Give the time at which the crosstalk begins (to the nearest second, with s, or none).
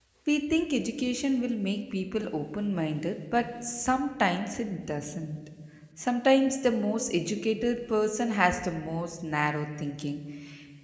none